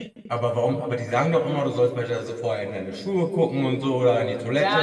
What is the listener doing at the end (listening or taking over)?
taking over